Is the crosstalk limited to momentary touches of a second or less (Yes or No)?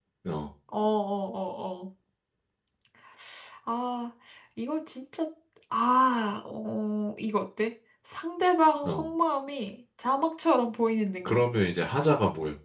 Yes